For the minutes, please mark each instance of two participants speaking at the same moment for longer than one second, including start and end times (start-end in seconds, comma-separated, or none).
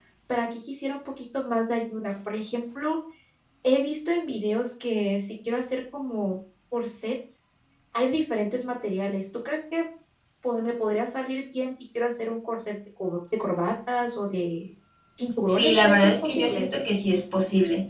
15.5-16.7